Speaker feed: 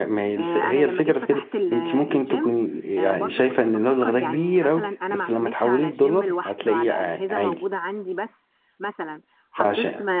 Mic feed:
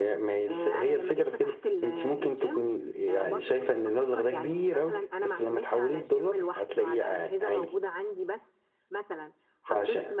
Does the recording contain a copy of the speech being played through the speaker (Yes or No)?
Yes